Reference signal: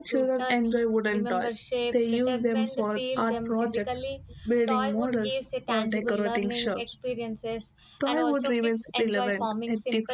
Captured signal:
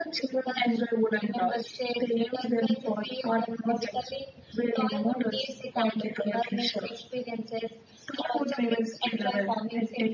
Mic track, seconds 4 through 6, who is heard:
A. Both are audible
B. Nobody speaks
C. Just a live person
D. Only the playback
D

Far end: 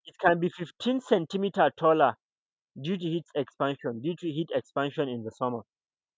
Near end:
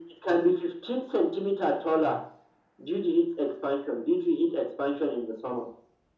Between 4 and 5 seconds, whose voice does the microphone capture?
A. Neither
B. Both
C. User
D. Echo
D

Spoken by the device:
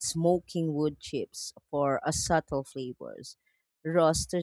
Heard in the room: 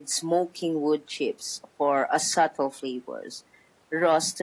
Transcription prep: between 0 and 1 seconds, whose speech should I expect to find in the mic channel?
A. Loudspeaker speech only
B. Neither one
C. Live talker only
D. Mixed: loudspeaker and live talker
A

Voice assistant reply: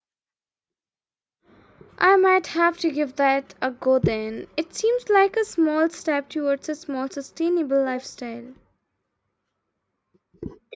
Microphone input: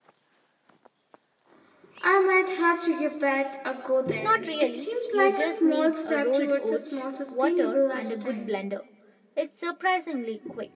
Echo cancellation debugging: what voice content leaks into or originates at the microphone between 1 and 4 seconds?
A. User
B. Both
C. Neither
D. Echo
D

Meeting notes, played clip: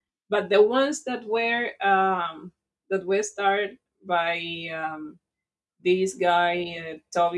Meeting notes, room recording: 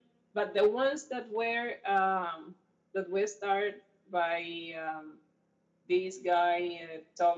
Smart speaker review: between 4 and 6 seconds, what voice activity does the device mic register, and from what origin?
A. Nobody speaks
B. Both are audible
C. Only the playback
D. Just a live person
C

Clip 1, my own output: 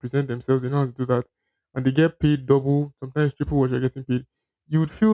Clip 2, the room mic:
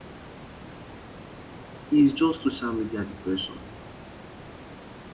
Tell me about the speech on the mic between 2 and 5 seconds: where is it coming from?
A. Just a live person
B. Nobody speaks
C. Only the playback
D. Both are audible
A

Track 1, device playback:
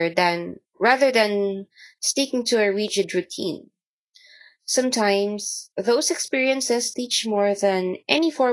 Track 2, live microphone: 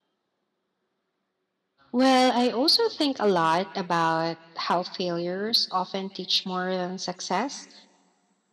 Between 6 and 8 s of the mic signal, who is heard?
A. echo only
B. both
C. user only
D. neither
C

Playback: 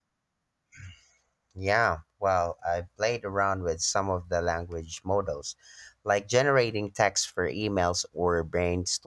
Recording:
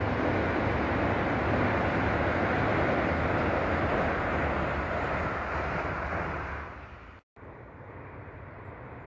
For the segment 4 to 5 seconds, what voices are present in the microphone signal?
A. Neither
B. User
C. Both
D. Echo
A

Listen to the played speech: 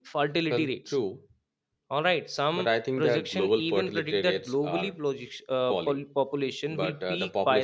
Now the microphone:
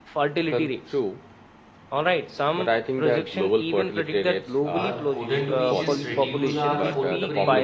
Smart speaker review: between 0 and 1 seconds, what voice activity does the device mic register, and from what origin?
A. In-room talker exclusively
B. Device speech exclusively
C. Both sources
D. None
B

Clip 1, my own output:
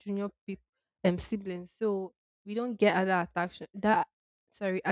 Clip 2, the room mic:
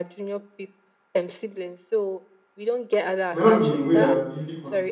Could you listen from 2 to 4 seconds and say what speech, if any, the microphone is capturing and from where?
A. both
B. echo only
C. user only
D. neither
A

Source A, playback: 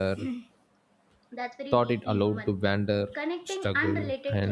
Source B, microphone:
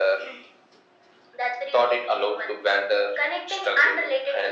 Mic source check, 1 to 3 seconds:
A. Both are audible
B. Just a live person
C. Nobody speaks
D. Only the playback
D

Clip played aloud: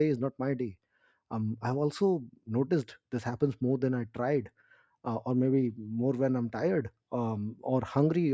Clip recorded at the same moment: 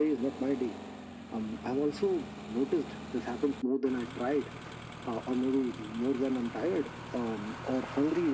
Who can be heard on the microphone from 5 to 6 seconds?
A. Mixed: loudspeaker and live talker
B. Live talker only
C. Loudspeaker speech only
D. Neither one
C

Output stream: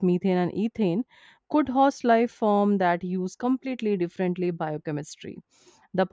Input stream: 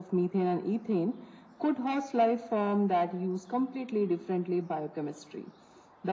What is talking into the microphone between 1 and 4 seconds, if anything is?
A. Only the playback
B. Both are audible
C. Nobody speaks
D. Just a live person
A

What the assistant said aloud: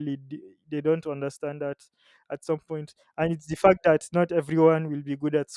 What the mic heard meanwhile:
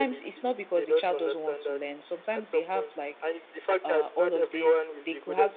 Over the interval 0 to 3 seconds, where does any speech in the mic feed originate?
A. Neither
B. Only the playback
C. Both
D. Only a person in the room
C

